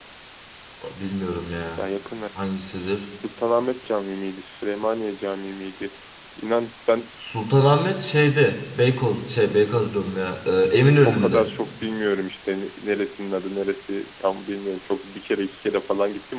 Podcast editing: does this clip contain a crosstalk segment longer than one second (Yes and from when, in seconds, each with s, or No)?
No